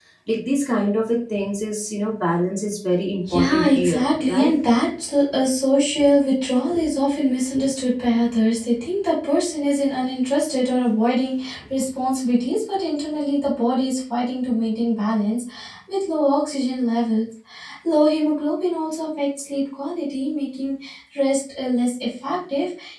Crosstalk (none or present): present